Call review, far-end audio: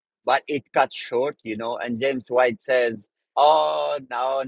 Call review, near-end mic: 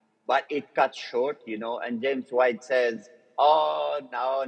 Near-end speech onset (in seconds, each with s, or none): none